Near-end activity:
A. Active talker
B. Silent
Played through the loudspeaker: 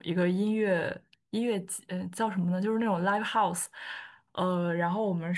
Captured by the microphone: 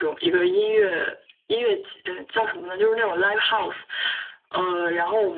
B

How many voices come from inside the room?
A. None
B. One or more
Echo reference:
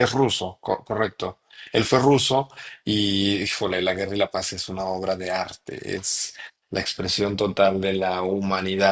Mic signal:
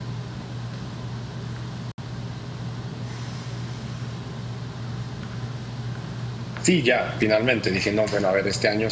B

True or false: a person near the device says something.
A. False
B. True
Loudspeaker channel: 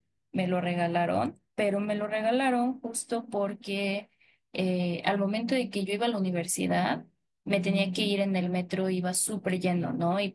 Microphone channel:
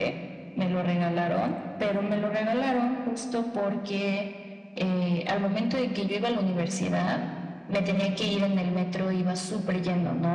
A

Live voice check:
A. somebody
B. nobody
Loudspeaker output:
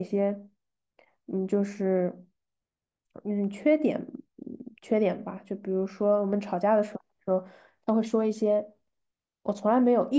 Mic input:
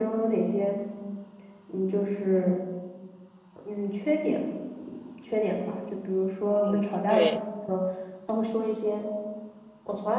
A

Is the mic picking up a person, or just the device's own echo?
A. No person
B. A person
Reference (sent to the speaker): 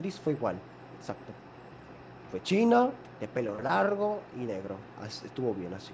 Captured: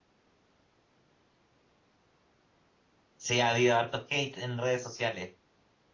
B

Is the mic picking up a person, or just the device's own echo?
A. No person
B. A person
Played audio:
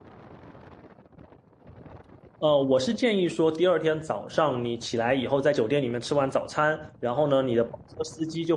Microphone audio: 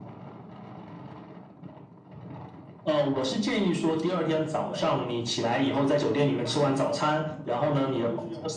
B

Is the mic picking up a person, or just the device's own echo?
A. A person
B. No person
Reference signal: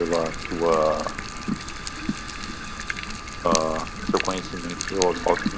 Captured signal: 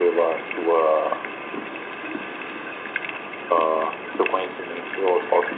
B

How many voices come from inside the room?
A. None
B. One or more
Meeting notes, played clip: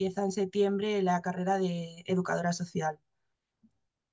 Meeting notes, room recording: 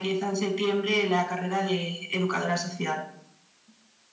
A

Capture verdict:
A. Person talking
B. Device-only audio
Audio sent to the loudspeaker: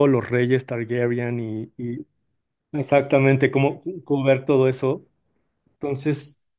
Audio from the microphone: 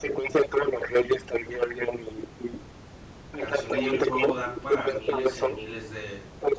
A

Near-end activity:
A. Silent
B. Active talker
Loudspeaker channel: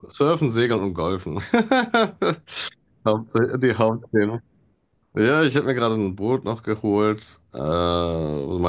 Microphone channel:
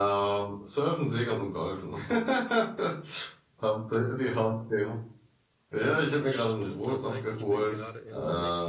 B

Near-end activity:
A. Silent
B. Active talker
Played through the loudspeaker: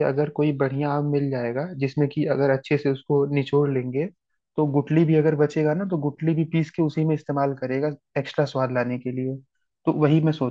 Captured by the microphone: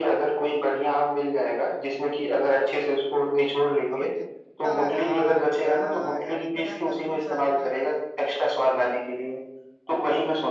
B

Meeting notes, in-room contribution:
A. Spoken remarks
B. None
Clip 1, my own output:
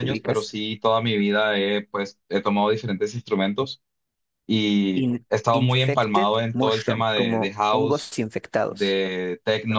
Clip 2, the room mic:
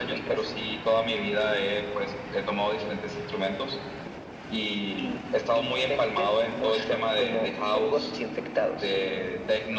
B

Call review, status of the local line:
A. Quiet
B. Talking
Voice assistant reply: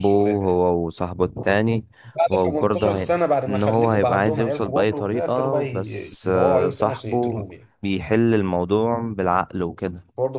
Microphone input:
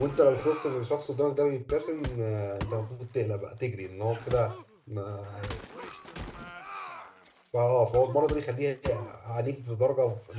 B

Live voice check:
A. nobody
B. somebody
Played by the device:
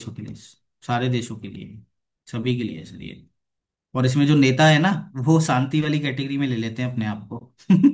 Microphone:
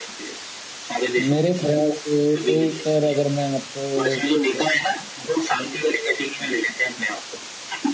B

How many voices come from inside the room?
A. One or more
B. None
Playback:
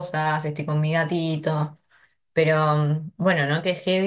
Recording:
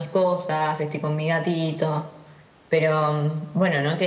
B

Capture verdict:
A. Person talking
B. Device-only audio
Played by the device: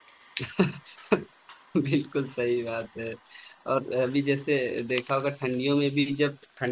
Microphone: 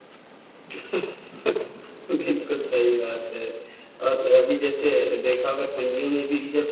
B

